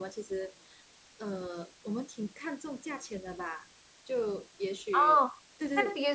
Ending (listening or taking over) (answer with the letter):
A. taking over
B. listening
A